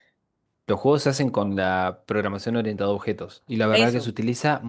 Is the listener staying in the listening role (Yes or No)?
Yes